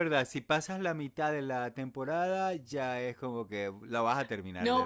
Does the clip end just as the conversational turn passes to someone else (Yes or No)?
Yes